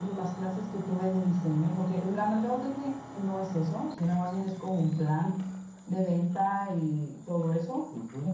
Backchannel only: No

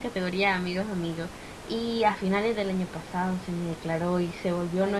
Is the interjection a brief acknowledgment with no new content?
Yes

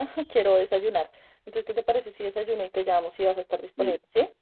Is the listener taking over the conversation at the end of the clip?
Yes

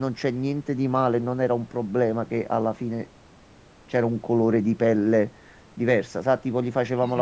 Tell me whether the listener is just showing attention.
Yes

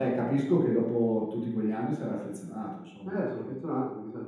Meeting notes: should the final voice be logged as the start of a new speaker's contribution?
Yes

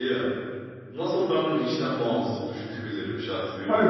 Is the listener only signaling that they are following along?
No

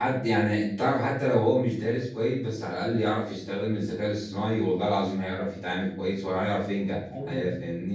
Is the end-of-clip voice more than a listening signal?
Yes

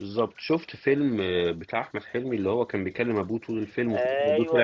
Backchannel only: No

